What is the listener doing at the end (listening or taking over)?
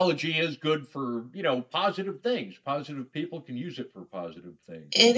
taking over